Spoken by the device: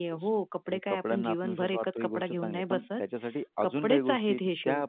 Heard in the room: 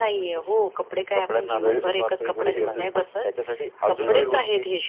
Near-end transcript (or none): वेळ तीच वेळ तर तीच अगदी बरोबर.